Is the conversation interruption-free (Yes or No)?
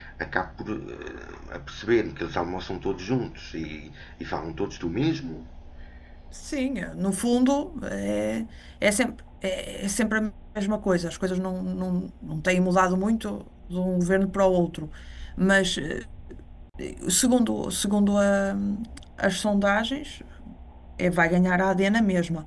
Yes